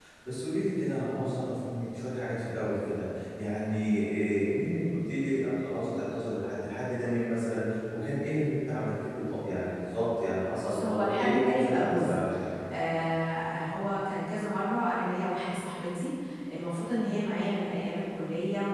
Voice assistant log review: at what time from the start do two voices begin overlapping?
10.6 s

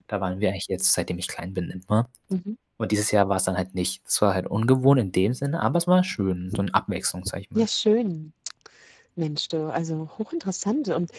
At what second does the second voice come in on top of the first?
none

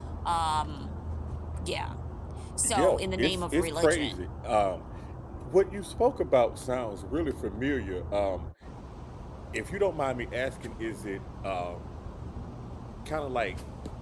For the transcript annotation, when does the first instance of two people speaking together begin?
2.6 s

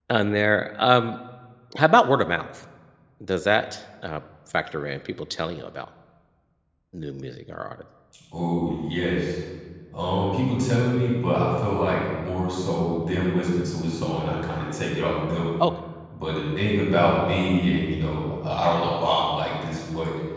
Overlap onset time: none

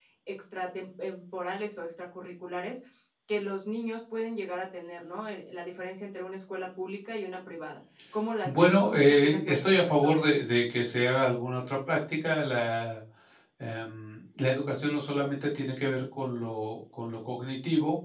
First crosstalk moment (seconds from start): 8.4 s

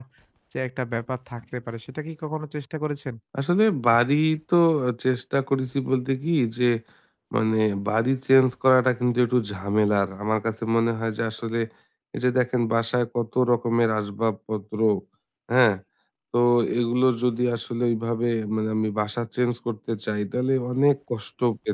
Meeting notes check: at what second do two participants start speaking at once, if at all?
none

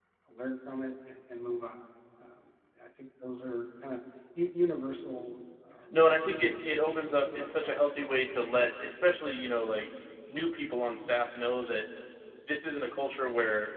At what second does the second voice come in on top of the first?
5.9 s

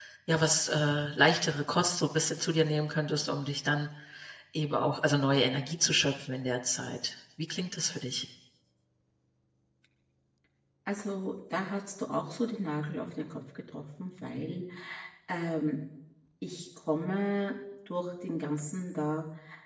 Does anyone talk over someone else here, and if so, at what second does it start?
none

